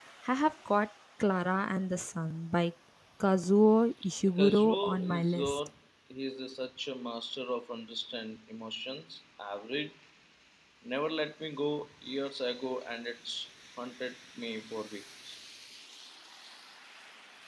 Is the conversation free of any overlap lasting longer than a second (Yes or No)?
No